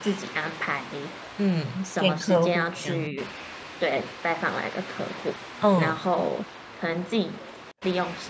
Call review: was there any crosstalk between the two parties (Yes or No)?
Yes